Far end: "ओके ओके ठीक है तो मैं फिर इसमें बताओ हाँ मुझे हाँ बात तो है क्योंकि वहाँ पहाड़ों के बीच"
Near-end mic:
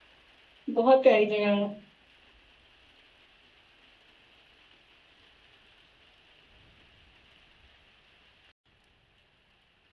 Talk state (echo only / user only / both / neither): user only